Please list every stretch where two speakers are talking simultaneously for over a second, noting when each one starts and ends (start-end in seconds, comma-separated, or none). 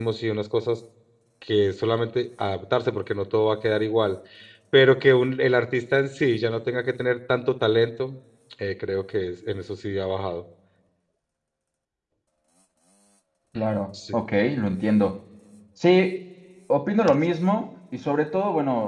none